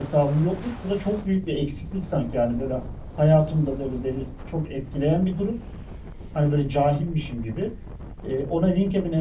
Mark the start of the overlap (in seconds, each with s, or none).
none